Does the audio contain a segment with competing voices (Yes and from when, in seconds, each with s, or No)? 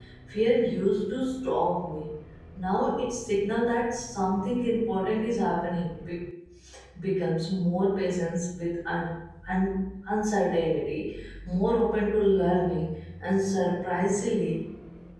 No